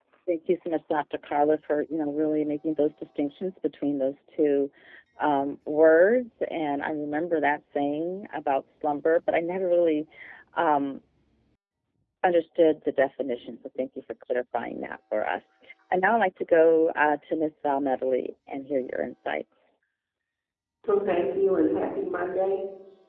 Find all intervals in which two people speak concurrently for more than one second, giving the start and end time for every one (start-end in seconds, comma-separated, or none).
none